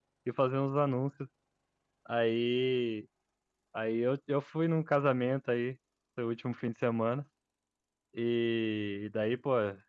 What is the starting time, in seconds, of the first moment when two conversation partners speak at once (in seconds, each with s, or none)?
none